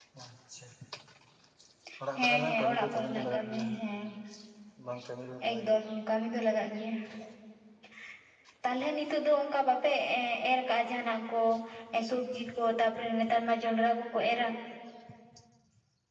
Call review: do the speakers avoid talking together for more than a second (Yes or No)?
No